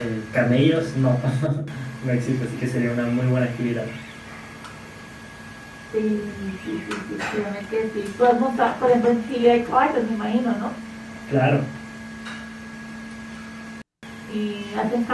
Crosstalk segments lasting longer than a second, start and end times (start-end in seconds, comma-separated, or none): none